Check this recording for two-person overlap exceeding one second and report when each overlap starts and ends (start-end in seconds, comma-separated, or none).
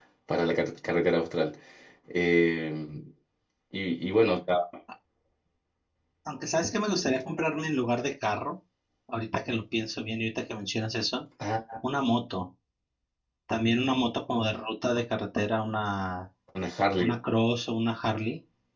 none